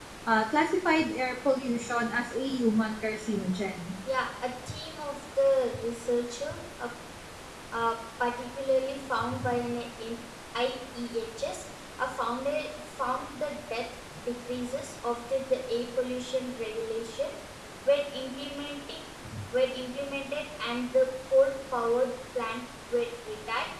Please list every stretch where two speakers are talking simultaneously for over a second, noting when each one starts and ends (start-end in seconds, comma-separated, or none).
none